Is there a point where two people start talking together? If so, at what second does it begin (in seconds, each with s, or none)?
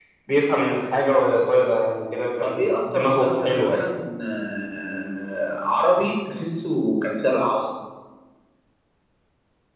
2.4 s